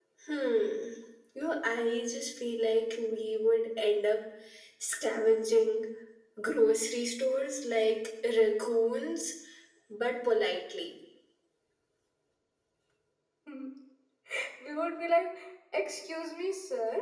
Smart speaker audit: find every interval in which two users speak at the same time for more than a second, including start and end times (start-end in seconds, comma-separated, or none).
none